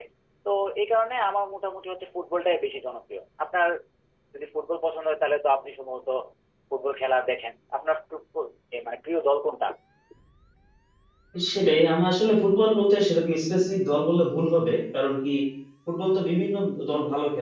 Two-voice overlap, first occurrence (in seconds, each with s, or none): none